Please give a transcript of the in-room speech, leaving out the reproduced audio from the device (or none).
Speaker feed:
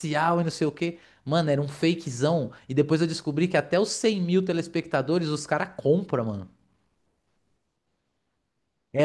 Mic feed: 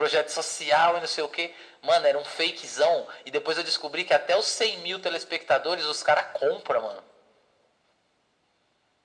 none